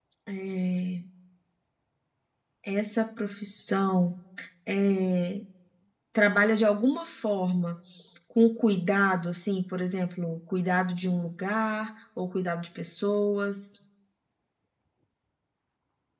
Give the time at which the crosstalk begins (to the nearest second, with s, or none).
none